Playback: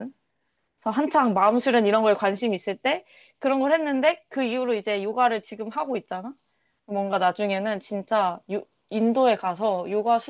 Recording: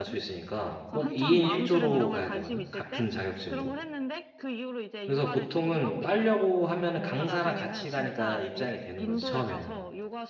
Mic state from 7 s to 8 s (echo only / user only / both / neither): both